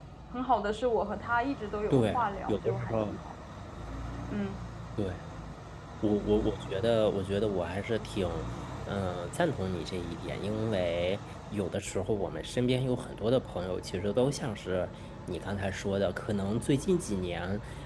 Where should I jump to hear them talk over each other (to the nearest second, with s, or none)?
2 s